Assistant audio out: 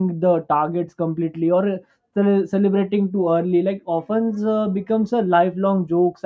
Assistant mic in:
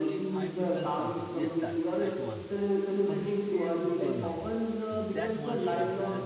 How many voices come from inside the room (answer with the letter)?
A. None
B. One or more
B